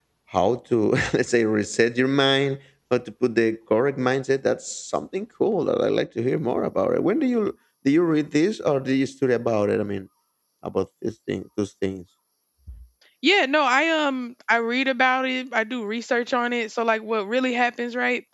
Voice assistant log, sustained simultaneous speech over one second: none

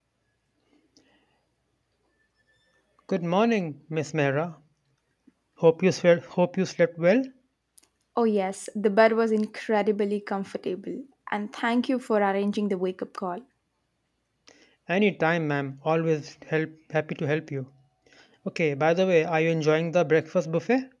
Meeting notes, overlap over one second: none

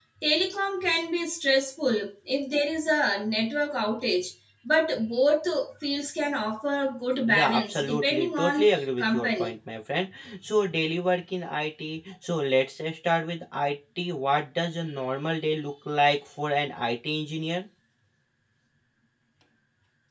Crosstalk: present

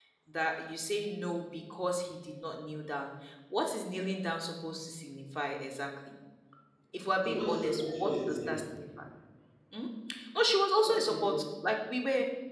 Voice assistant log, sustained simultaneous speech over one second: present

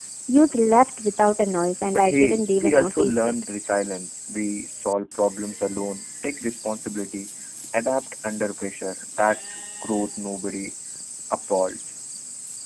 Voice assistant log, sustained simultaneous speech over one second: present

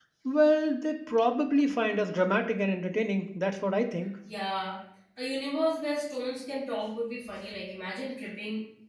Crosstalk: none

